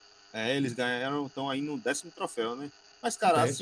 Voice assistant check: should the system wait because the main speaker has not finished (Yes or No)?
Yes